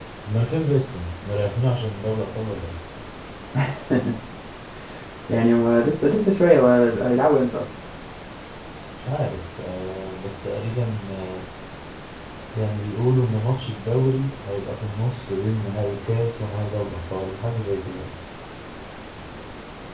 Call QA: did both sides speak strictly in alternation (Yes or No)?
Yes